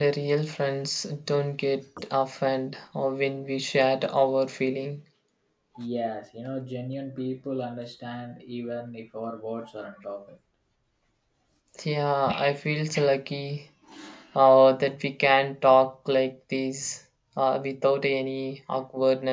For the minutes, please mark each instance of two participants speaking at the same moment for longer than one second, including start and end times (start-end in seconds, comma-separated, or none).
none